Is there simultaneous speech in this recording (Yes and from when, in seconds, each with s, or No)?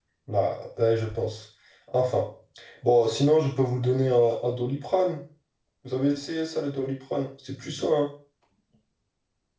No